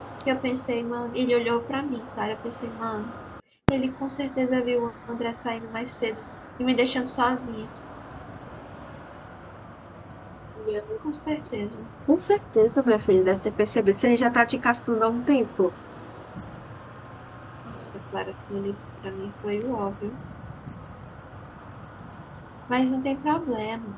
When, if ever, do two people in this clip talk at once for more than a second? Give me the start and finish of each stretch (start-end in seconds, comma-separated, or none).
none